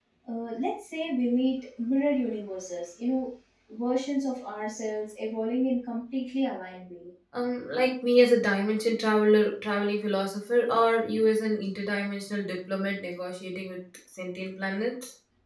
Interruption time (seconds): none

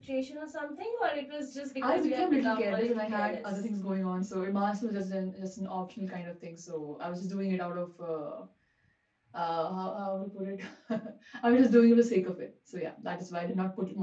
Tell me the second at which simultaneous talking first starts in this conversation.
2 s

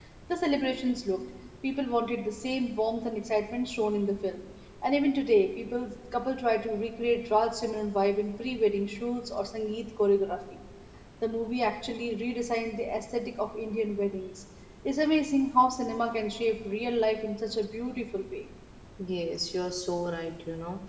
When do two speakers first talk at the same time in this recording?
none

